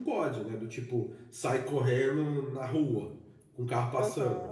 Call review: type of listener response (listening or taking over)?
listening